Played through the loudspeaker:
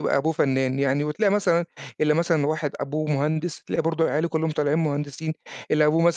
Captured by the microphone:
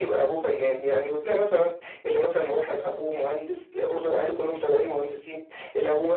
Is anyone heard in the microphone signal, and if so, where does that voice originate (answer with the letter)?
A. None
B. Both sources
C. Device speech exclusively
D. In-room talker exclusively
C